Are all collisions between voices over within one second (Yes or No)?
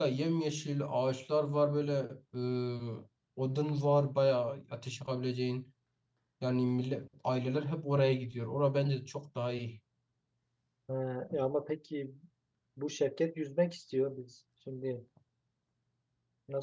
Yes